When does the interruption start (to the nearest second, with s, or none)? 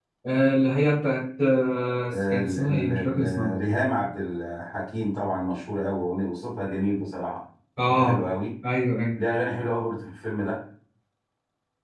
2 s